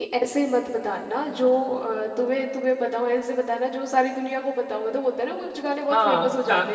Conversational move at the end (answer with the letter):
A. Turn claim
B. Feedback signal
A